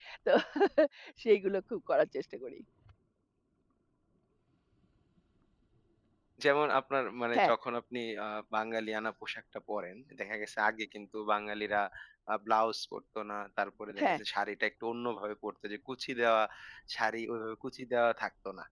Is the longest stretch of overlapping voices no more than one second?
Yes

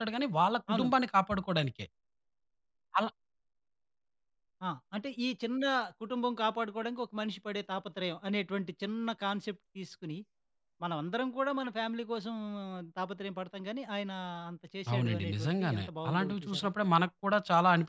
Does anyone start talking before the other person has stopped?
Yes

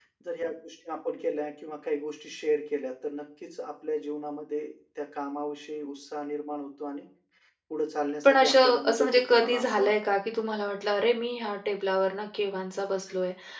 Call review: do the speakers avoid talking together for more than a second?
No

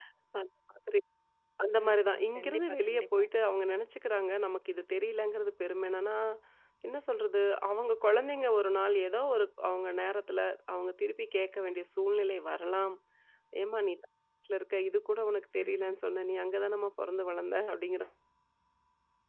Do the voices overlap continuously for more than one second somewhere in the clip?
Yes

